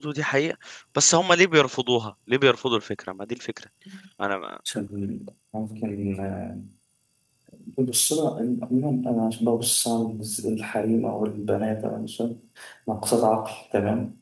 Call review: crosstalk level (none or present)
none